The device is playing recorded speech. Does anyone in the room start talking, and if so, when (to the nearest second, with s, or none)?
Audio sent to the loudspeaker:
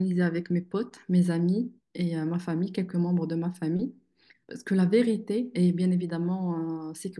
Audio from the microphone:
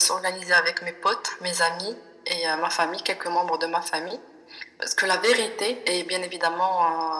none